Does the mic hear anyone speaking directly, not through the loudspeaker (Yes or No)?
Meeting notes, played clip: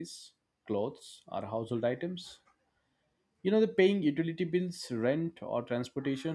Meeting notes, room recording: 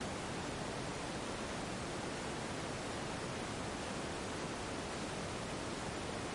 No